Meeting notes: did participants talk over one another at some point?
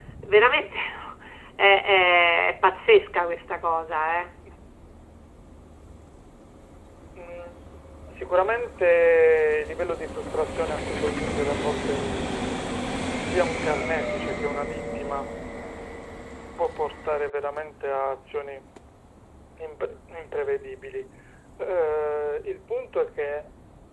No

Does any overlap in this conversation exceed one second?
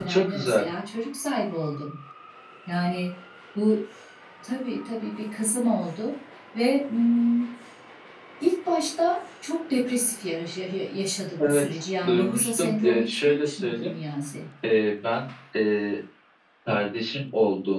Yes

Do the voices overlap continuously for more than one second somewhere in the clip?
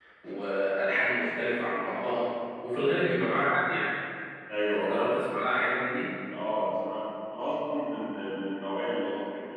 No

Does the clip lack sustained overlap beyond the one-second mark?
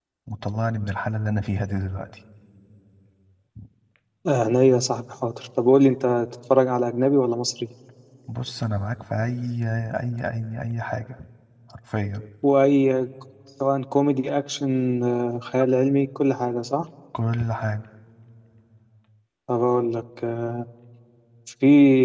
Yes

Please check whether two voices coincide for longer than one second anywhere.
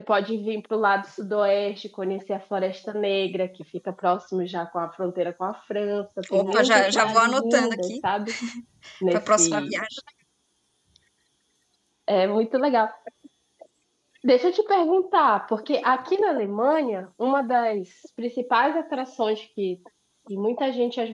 Yes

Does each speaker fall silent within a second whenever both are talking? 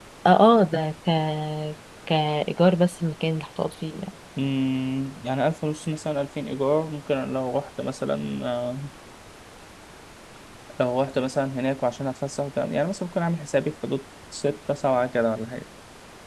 Yes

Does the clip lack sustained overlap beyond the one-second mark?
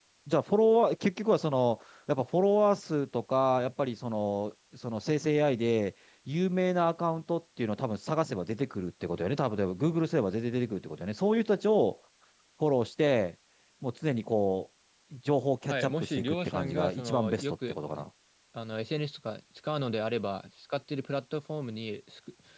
No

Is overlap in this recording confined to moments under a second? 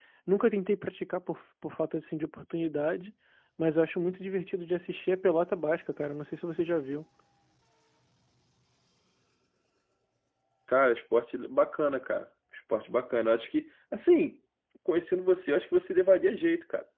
Yes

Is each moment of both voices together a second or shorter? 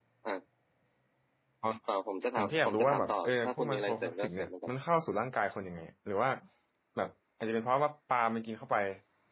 No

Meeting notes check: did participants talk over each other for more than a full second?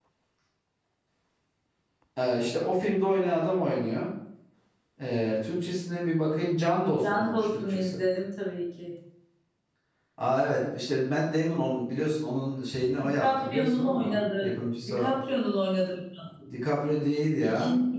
Yes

